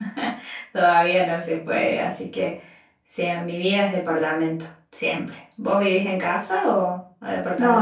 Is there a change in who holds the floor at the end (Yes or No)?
Yes